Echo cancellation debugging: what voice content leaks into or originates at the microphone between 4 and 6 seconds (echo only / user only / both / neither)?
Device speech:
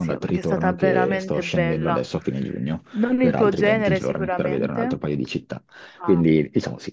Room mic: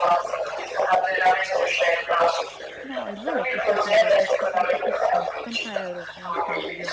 both